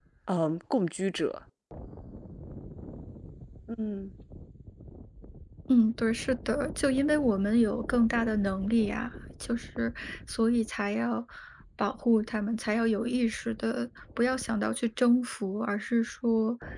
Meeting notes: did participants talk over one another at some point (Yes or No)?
No